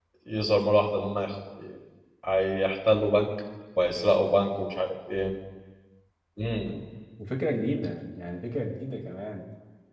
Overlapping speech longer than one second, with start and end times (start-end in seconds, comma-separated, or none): none